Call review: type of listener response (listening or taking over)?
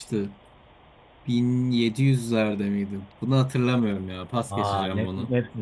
taking over